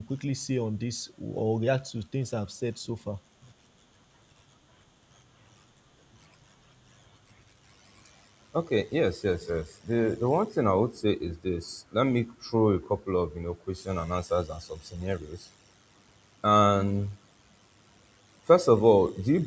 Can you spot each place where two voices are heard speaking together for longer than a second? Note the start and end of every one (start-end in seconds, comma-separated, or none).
none